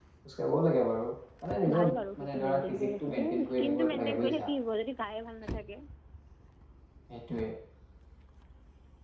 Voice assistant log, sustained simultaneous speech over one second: present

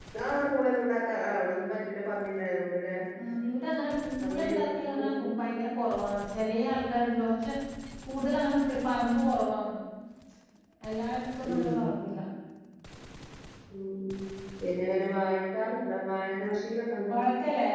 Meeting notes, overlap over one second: none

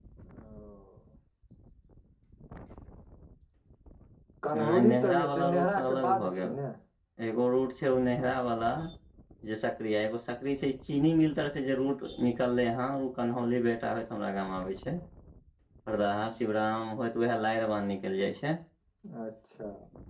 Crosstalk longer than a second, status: present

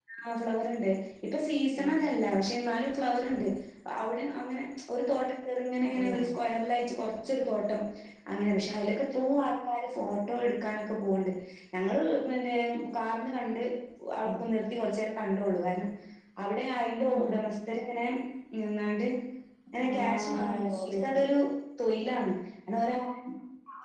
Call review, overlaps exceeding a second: present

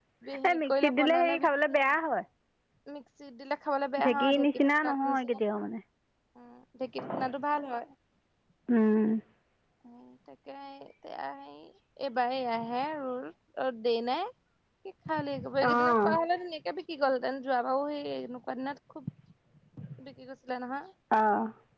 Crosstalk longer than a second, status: present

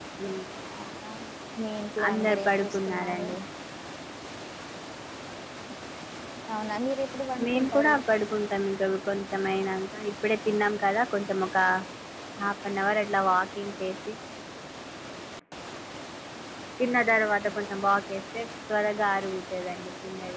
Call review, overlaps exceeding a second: present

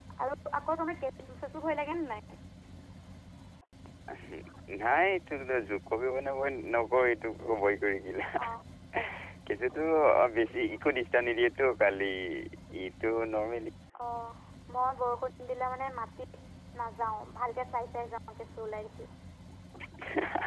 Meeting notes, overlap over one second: none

